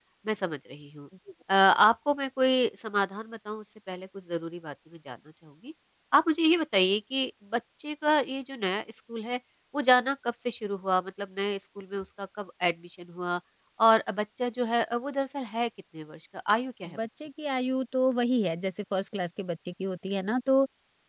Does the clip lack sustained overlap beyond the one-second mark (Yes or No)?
Yes